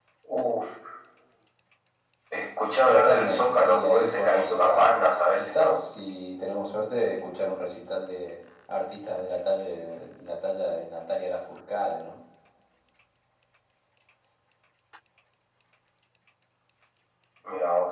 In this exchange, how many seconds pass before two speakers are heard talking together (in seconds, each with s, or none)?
2.9 s